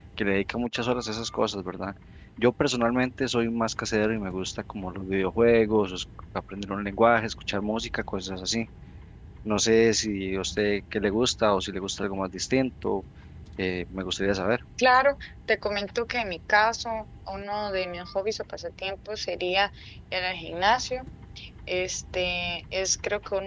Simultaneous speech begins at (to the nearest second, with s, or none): none